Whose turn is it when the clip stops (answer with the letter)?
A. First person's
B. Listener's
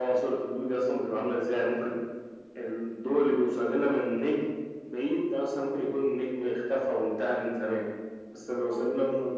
A